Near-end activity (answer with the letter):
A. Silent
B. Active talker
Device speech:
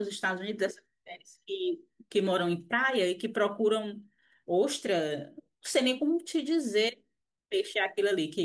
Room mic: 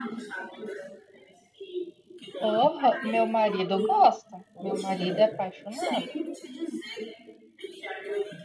B